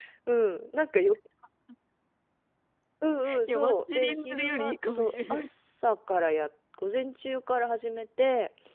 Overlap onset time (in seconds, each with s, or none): 3.5 s